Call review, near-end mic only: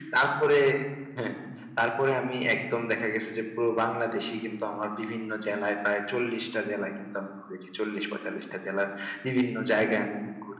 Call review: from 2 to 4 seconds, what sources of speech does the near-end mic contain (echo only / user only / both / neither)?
echo only